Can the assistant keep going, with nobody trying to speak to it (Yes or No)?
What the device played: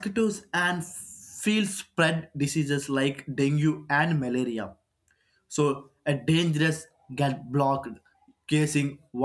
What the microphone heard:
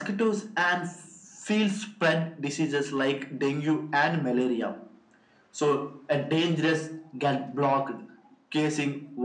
Yes